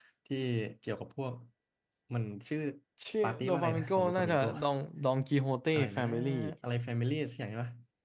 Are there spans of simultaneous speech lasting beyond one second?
Yes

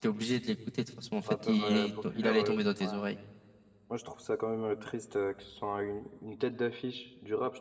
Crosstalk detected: Yes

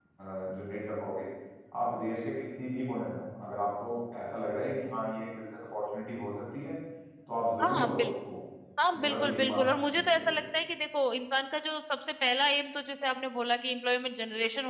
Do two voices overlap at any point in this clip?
Yes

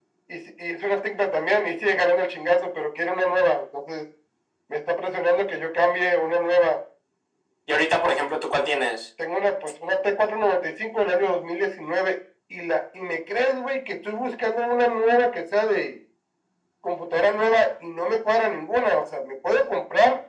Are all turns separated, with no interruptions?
Yes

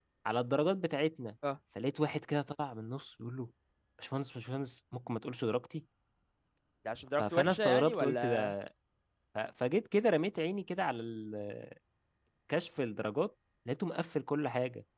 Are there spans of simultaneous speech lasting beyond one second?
Yes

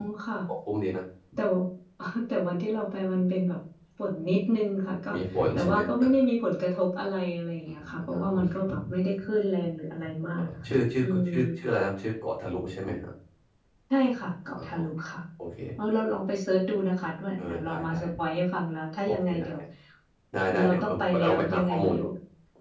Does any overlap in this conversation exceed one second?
Yes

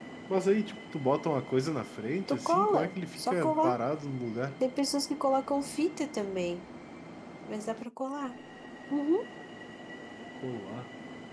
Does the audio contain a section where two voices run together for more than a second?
Yes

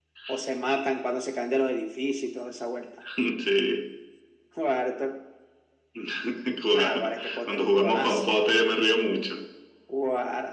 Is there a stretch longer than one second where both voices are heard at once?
Yes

